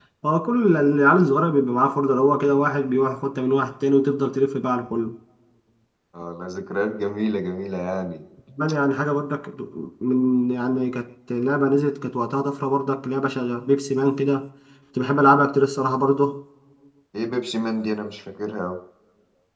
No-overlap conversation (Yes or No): Yes